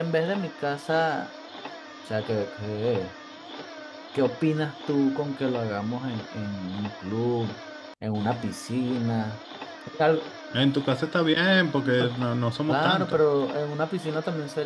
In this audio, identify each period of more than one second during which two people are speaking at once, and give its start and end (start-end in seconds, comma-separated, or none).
none